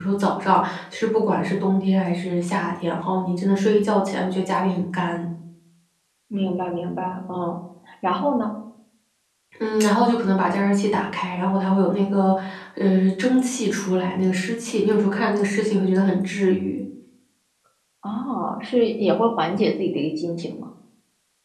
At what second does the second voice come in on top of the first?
none

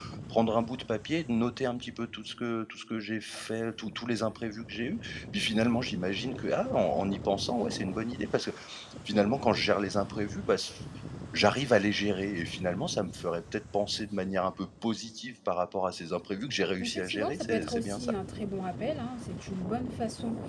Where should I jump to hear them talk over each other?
16.8 s

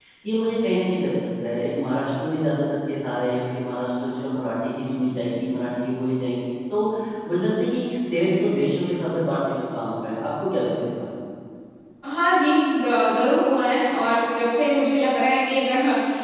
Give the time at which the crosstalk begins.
none

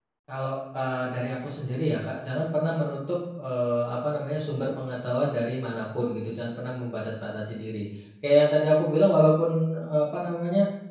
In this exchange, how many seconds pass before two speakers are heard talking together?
none

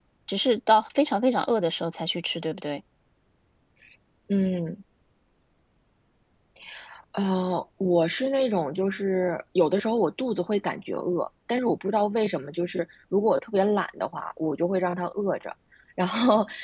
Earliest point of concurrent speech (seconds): none

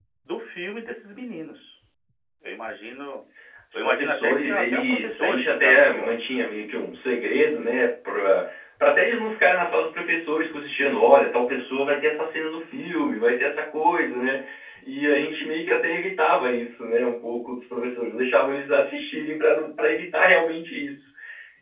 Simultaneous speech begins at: 3.7 s

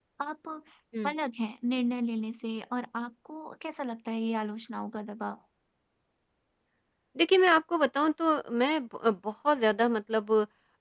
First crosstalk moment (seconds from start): none

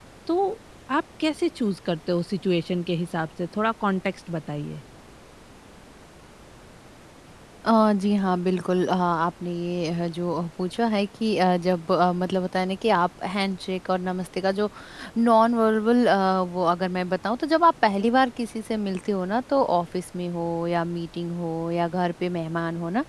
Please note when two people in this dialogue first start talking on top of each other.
none

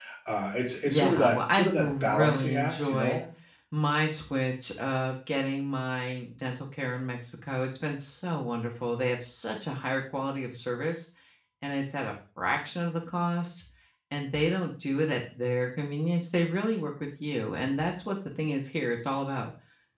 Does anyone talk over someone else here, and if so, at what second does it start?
0.9 s

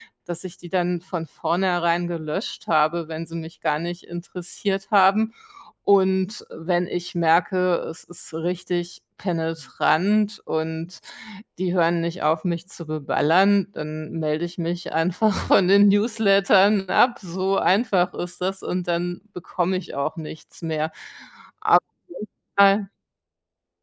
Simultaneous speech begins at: none

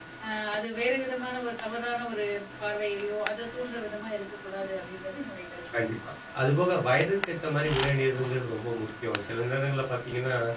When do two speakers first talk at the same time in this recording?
none

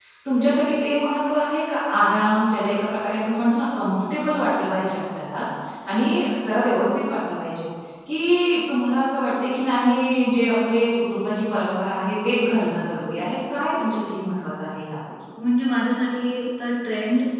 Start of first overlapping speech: none

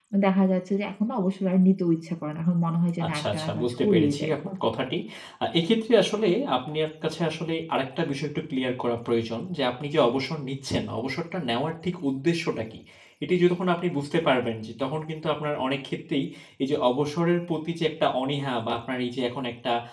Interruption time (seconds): 3.0 s

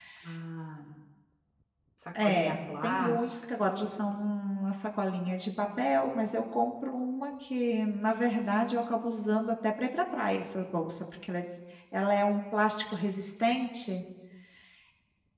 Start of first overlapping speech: 2.2 s

